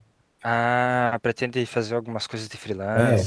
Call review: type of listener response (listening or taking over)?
taking over